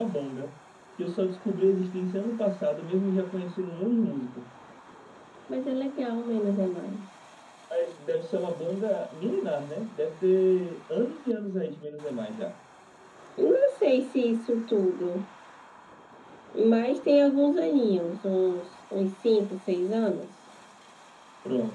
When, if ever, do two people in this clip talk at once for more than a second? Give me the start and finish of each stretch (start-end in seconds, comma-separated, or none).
none